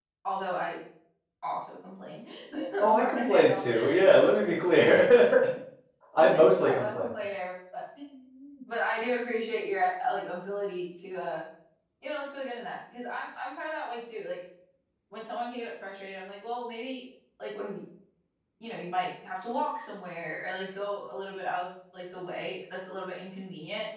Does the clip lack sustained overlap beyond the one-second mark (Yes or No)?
No